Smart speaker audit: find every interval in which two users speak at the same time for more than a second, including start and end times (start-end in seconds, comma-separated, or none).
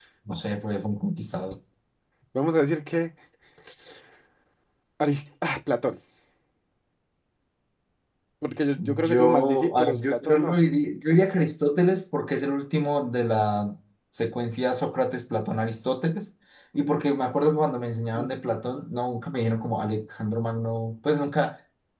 8.8-10.6